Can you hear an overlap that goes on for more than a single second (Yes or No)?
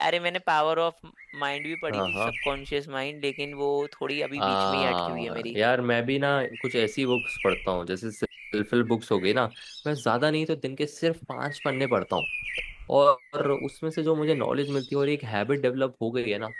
Yes